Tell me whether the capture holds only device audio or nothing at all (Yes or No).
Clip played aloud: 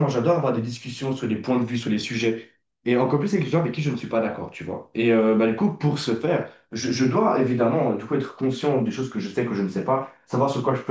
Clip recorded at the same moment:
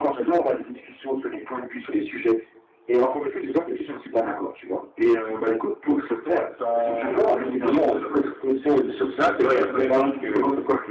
No